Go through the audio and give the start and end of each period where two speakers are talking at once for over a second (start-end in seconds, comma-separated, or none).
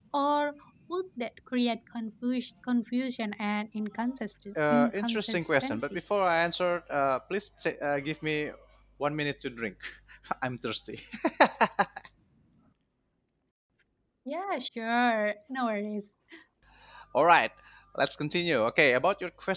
4.7-6.0